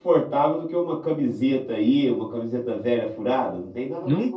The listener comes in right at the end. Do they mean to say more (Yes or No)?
Yes